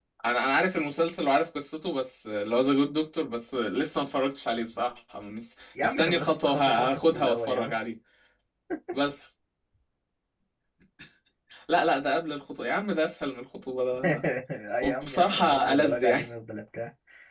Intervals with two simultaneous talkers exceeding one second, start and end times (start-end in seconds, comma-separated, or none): 5.8-7.7, 14.8-16.2